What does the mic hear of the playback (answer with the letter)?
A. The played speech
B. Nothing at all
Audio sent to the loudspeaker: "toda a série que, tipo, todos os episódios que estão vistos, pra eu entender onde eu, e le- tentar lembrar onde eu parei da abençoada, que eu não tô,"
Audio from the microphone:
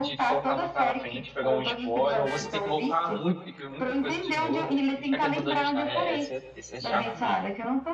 A